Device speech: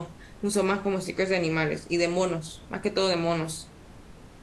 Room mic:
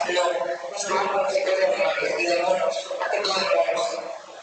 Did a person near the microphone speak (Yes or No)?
No